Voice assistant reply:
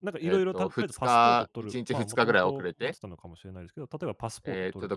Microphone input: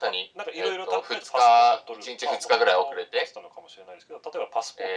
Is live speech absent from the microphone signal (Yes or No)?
Yes